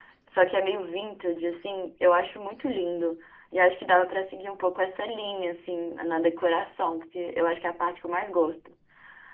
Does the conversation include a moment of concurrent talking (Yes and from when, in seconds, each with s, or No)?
No